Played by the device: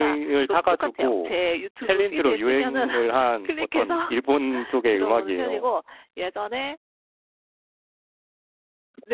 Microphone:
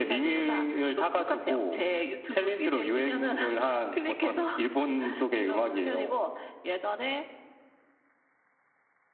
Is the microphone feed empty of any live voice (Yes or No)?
Yes